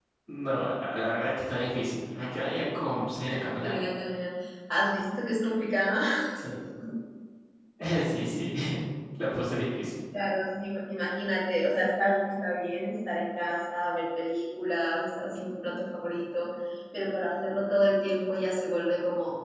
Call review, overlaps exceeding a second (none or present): none